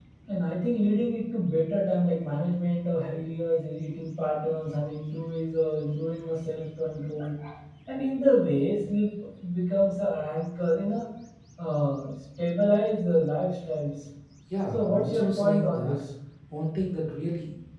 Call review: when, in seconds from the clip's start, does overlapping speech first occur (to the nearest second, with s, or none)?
15 s